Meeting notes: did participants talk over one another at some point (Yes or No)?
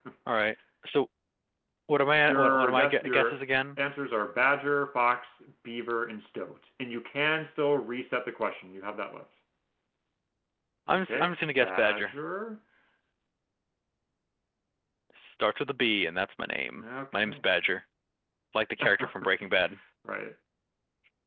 Yes